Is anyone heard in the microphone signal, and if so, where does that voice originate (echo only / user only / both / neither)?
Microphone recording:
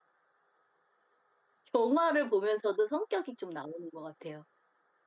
user only